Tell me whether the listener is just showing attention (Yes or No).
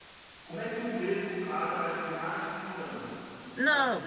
No